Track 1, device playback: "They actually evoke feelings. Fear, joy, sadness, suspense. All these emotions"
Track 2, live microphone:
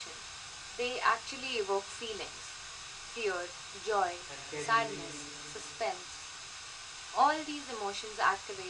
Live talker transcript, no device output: and casuality,

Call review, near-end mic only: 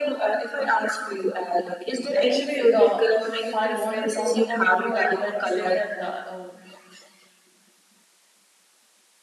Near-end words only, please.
Actually, uh, if I want to talk about blue, I would like to say that uh, uh,

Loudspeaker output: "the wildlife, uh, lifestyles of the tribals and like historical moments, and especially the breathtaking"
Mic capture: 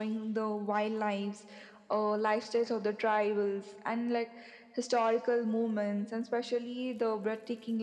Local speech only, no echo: none

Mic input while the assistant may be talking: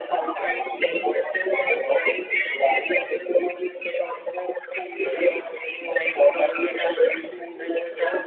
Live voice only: none

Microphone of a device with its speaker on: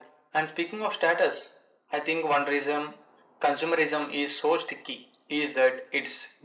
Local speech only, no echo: none

